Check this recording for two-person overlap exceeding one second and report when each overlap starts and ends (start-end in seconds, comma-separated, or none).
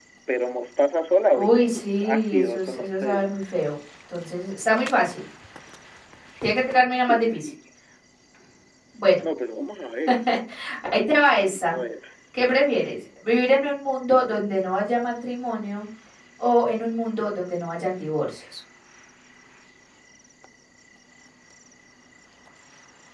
1.3-3.3